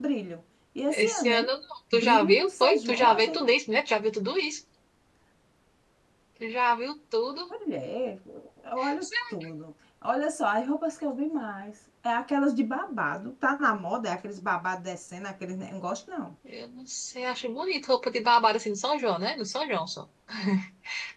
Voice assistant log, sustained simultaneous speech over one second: present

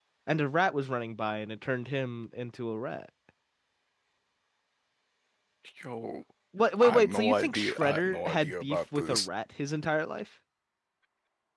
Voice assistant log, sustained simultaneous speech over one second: present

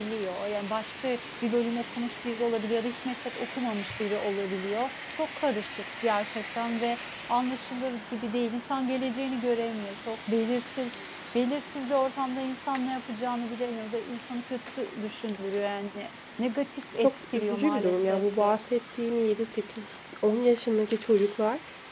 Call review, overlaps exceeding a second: present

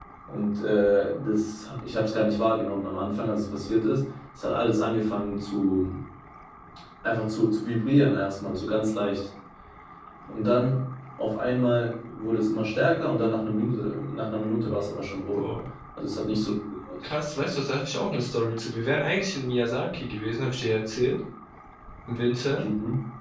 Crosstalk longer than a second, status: none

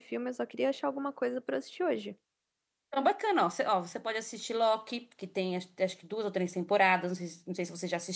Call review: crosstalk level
none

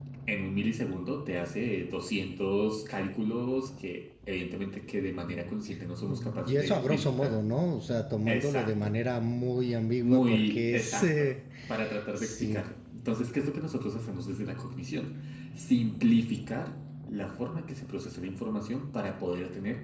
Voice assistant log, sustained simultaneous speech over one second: present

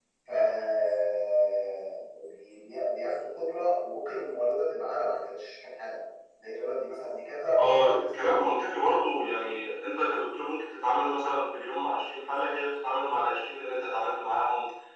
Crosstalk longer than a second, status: none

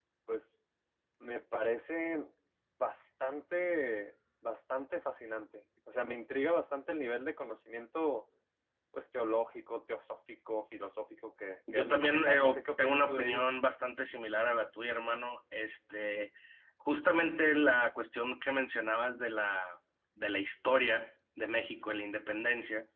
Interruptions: present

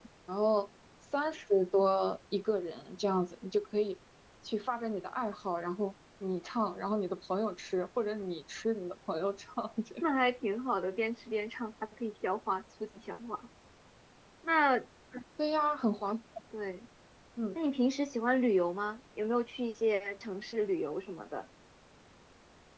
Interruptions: none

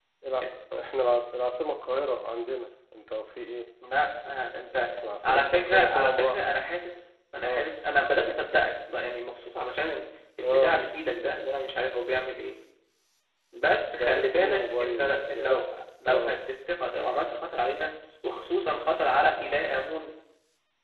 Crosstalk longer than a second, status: present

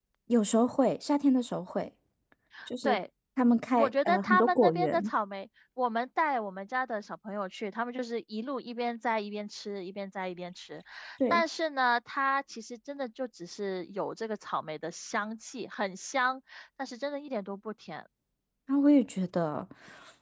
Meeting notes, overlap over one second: present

